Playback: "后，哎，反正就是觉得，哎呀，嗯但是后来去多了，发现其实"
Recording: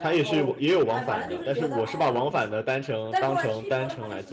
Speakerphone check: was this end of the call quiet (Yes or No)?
No